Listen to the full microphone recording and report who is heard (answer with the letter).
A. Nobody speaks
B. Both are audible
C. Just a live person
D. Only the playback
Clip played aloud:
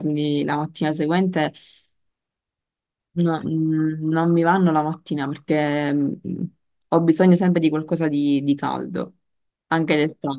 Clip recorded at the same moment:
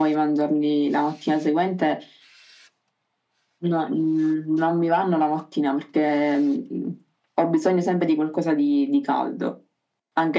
D